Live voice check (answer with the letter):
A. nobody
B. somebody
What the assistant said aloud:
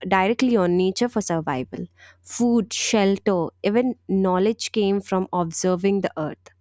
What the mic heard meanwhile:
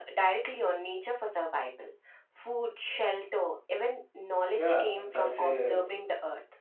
B